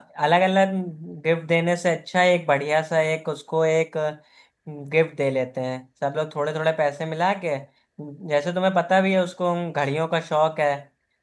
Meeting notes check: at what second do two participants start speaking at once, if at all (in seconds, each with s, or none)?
none